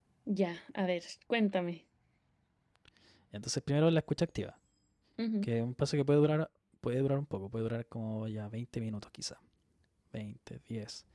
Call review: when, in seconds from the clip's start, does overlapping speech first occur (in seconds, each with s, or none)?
none